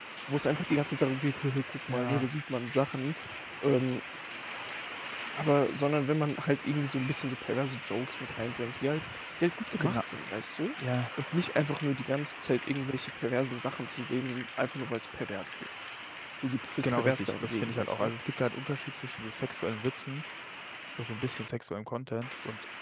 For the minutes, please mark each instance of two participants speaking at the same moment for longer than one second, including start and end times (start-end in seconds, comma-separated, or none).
16.8-18.1